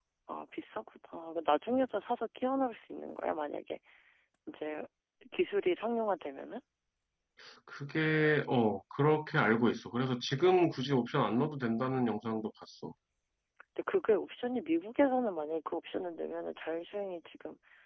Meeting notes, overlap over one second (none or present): none